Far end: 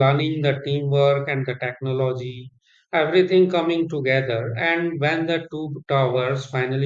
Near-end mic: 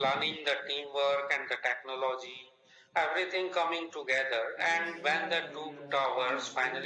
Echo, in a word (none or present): present